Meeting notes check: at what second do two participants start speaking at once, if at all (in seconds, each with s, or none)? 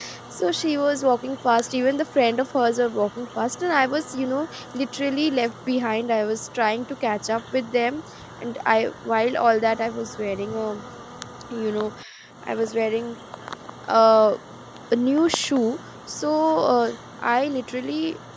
none